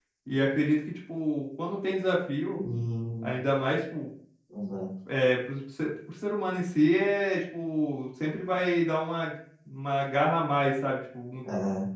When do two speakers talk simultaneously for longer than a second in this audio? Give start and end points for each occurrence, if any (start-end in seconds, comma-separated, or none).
none